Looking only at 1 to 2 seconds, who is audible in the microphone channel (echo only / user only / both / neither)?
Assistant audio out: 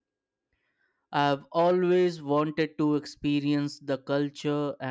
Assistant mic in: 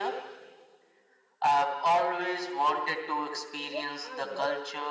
echo only